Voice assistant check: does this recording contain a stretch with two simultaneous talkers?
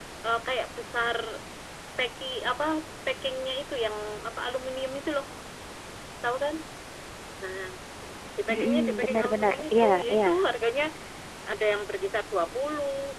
Yes, from 8.6 s

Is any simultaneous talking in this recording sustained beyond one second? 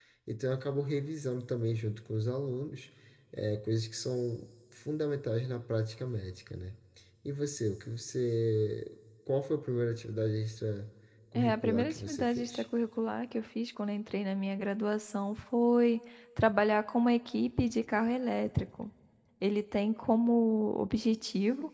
Yes, from 11.4 s

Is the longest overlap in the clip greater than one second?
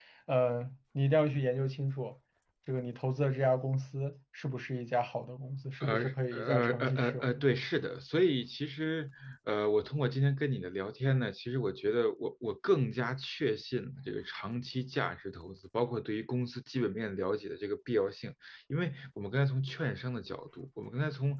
Yes, from 5.8 s

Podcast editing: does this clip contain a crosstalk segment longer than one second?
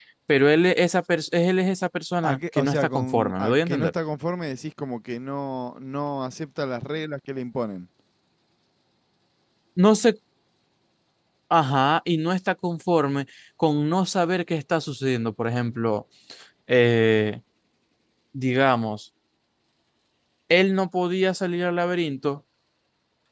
Yes, from 2.2 s

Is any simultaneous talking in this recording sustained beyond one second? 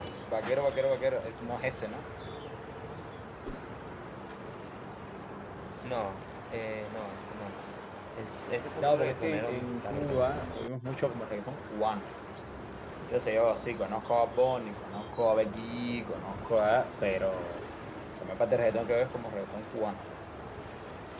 Yes, from 8.8 s

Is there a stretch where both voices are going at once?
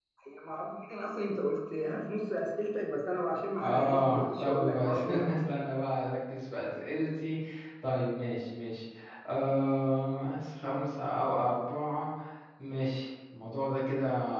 Yes, from 3.6 s

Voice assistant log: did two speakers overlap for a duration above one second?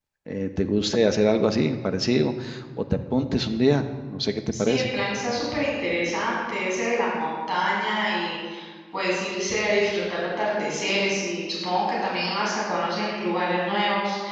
No

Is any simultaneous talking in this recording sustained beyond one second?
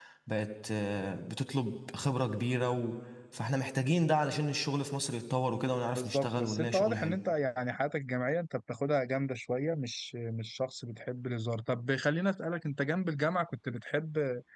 Yes, from 6.0 s

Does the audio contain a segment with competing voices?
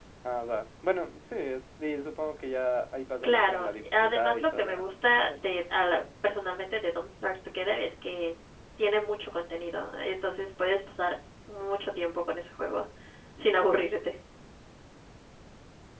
Yes, from 3.2 s

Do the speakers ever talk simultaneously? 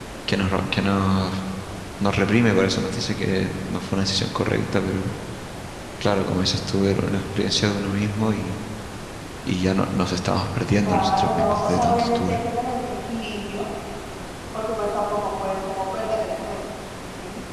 Yes, from 10.8 s

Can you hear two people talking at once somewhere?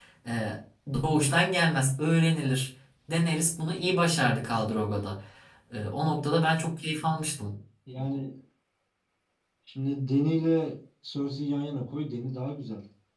No

